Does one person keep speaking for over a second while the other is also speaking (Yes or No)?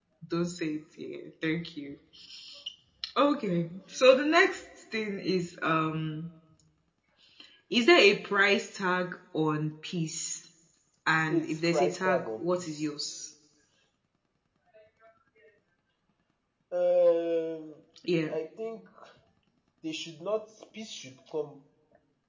Yes